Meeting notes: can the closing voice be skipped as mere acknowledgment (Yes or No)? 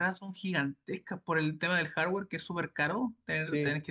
Yes